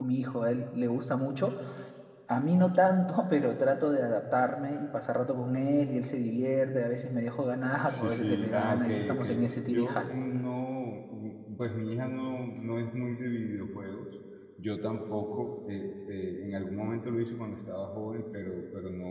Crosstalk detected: Yes, from 7.9 s

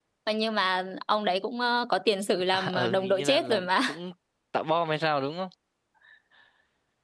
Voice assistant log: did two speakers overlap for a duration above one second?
Yes, from 2.5 s

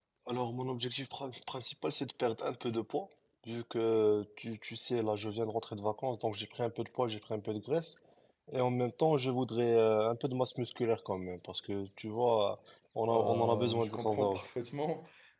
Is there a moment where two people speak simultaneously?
Yes, from 13.1 s

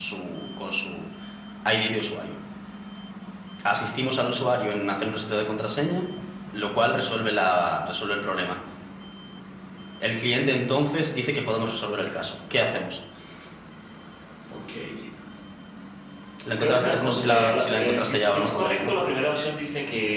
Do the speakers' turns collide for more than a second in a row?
Yes, from 16.6 s

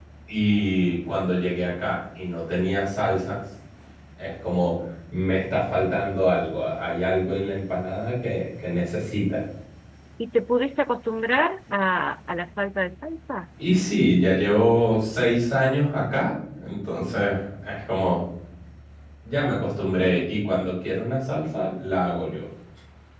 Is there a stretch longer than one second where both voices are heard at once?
No

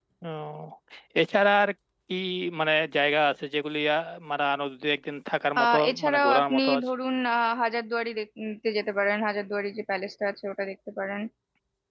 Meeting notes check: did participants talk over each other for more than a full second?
Yes, from 5.6 s

